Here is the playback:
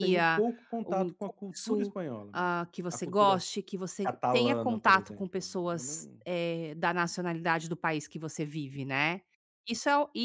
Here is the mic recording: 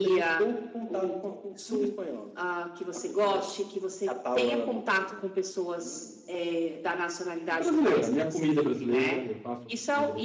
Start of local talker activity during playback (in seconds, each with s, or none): 7.5 s